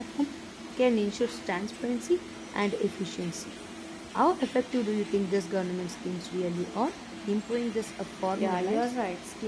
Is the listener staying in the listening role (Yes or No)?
No